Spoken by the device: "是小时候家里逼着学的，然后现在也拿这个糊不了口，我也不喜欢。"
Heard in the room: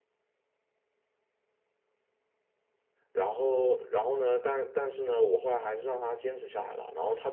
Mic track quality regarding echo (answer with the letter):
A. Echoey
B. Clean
B